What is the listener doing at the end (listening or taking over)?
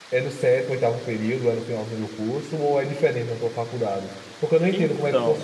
listening